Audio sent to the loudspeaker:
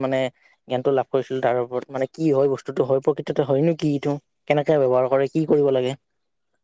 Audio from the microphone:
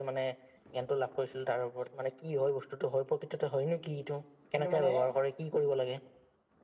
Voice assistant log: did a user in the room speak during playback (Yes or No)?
Yes